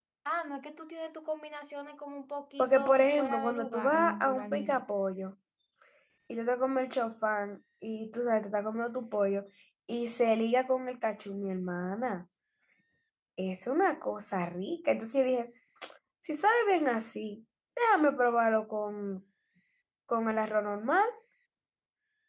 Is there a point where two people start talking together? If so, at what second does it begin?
3 s

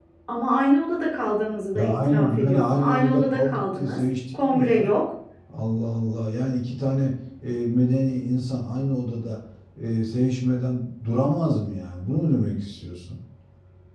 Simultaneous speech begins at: 2 s

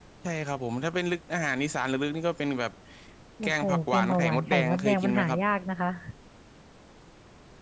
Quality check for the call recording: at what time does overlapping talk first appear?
3 s

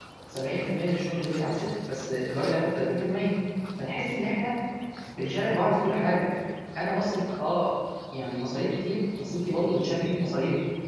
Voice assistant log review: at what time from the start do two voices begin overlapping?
none

